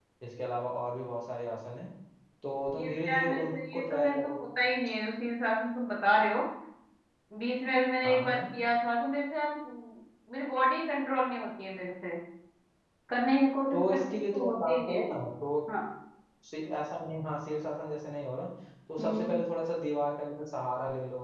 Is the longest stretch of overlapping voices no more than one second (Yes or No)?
No